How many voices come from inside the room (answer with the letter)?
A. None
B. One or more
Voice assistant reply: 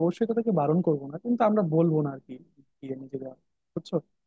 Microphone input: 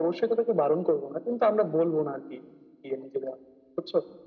A